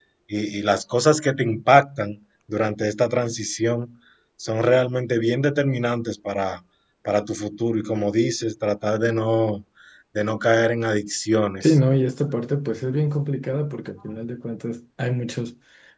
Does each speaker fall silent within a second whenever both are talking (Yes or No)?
Yes